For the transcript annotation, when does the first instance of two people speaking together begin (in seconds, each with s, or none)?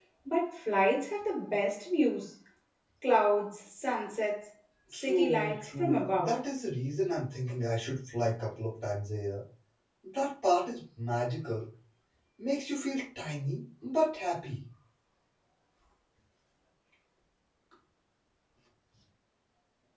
4.9 s